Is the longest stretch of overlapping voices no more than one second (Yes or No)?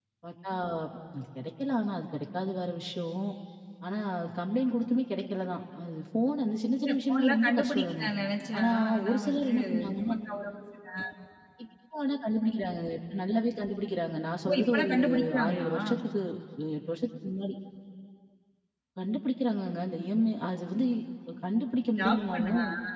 No